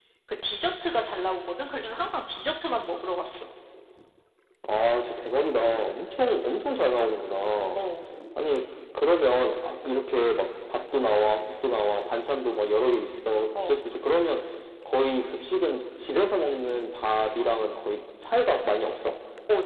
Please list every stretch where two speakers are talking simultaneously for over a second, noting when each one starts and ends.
none

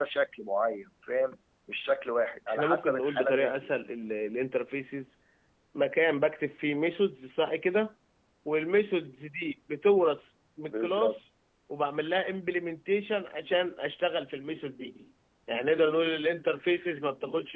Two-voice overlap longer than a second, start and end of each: 2.5-3.7

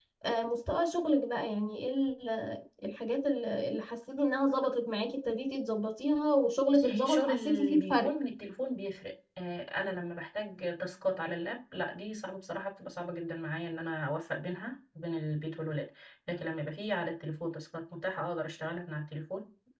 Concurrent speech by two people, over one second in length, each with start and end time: 6.7-8.1

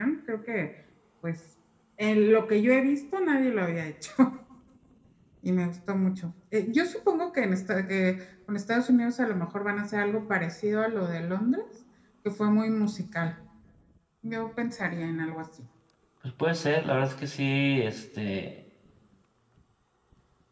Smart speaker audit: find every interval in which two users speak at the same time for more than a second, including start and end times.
none

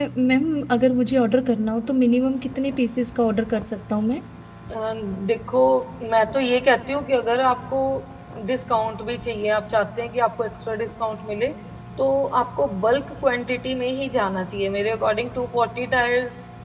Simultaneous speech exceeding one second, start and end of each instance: none

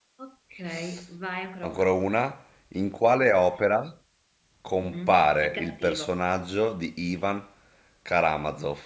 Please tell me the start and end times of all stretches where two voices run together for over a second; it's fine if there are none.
4.8-6.1

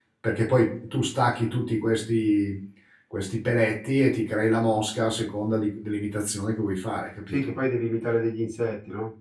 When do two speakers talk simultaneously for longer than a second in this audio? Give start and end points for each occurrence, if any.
none

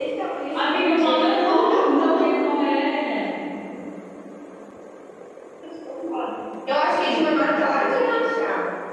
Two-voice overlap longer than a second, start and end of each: 0.6-2.3

